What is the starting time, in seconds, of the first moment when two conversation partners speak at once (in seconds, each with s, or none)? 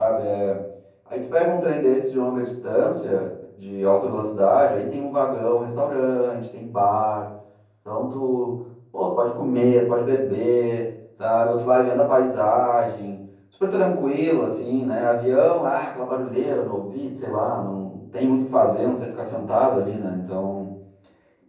none